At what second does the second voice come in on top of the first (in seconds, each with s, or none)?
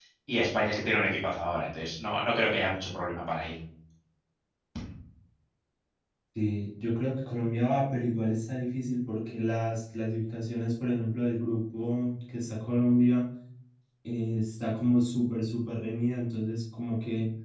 none